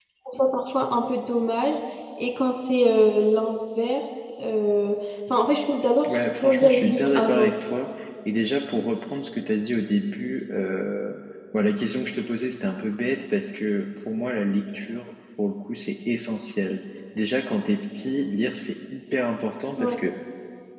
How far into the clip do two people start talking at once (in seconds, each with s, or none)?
6.1 s